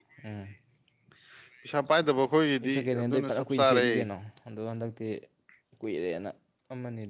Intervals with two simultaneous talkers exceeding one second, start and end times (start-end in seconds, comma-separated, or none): 2.6-3.9